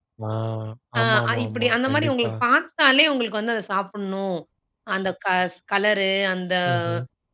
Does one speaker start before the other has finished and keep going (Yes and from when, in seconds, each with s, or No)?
Yes, from 1.0 s